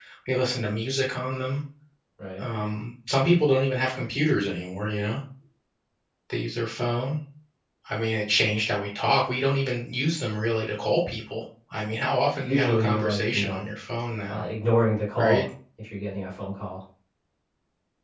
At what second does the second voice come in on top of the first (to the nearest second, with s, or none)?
12 s